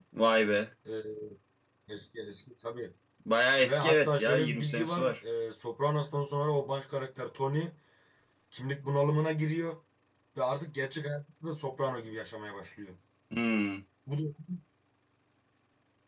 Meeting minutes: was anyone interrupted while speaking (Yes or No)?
Yes